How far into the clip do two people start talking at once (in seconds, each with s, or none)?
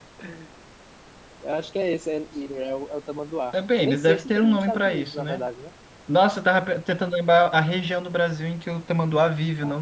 3.8 s